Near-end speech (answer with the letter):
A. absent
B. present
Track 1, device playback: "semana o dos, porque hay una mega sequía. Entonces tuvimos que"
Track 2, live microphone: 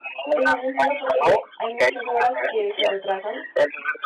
B